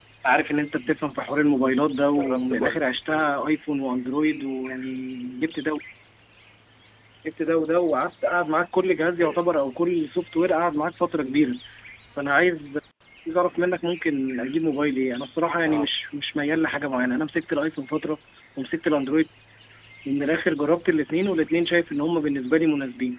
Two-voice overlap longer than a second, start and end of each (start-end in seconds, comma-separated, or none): 2.1-3.4